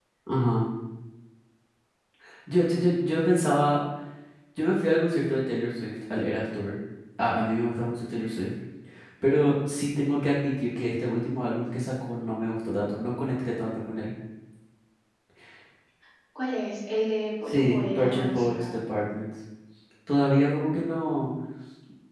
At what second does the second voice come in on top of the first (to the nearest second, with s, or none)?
17 s